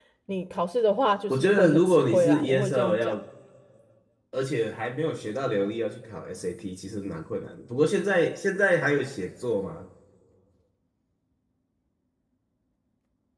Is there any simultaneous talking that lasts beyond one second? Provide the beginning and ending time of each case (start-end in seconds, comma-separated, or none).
1.3-3.1